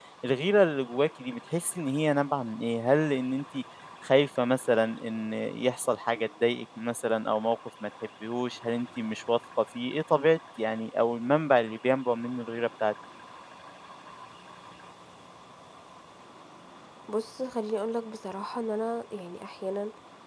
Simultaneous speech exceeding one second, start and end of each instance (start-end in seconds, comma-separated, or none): none